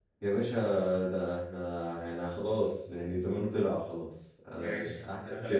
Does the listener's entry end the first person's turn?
Yes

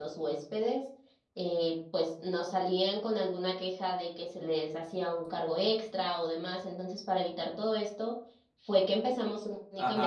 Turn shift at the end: Yes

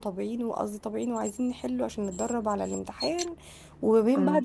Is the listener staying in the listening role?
Yes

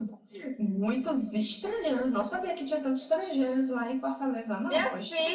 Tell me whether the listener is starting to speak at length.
Yes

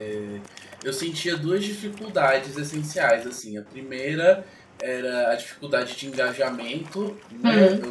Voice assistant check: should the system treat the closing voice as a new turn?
No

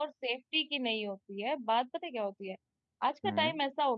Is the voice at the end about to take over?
No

